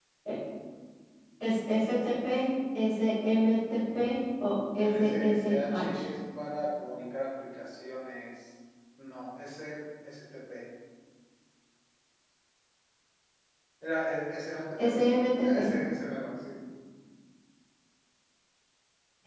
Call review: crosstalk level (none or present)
present